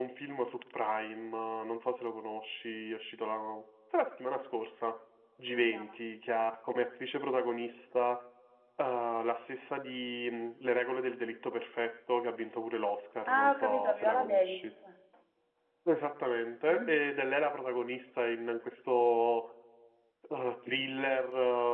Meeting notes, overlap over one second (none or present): present